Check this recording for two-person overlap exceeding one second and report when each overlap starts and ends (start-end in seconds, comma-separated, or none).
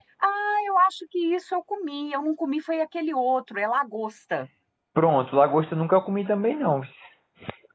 none